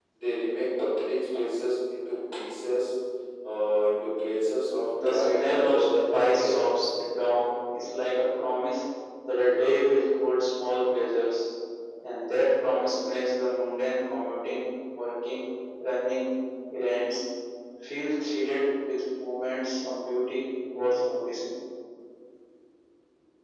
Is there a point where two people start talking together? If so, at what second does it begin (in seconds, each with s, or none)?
4.9 s